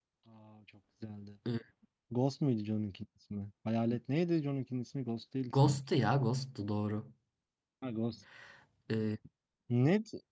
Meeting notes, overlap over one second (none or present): none